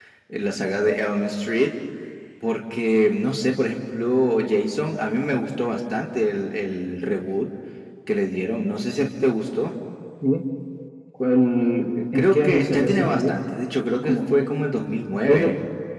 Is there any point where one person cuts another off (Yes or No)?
Yes